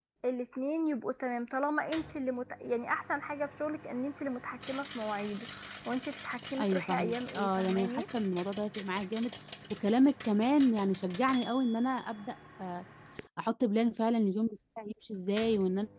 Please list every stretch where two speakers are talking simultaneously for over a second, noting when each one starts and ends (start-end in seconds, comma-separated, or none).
6.6-8.0